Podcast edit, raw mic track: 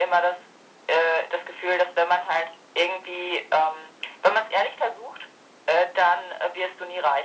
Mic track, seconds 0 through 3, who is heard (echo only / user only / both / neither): echo only